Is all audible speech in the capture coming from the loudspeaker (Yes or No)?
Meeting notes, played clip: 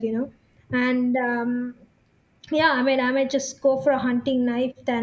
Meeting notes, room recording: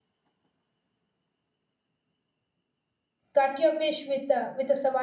No